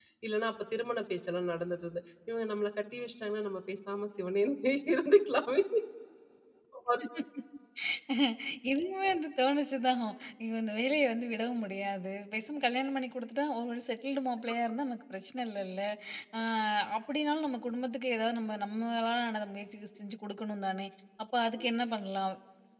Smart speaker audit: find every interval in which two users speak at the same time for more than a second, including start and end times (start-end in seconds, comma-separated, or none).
none